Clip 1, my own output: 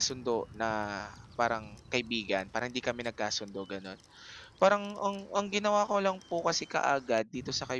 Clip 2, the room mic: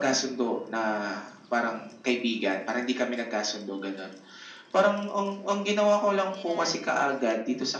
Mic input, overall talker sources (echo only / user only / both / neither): both